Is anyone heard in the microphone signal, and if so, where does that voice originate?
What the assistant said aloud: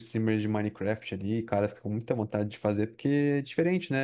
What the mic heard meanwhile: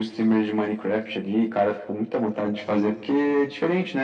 echo only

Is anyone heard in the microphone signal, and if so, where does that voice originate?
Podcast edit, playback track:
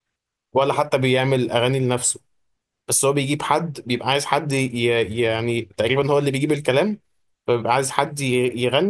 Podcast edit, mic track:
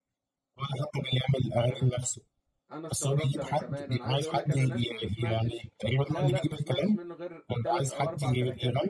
both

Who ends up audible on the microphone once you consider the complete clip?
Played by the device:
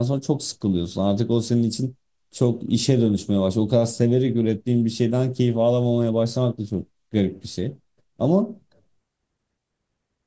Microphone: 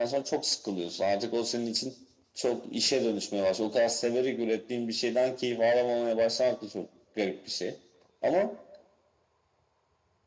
echo only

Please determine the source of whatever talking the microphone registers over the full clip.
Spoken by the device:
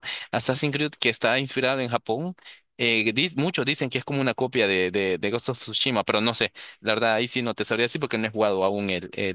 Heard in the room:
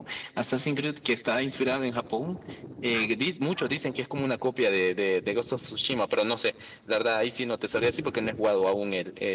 echo only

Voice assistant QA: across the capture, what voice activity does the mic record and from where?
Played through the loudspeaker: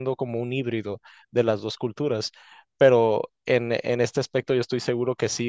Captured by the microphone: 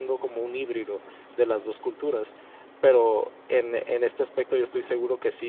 echo only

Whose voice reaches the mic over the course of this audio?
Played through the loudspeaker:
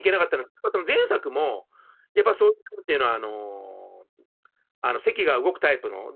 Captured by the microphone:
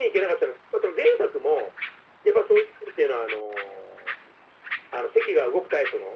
echo only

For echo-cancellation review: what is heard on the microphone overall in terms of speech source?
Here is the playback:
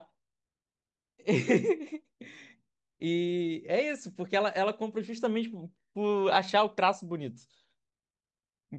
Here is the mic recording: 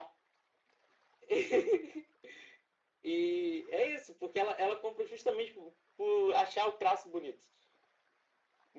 echo only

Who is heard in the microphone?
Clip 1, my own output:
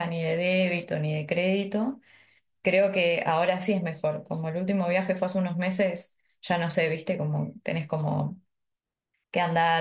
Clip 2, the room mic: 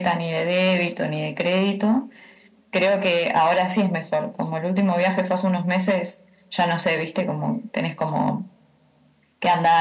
echo only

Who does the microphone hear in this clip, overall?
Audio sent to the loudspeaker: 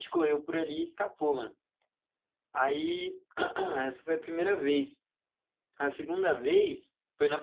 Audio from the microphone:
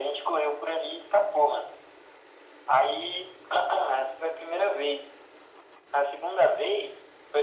echo only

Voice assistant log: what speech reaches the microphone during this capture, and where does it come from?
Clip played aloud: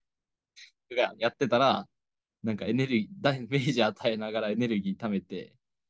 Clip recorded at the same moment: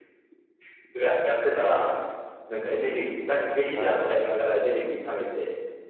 both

